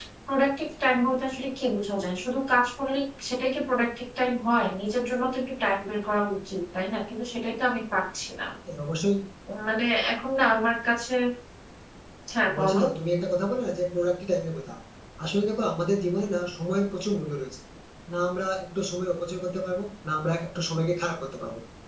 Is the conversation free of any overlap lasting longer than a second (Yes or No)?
Yes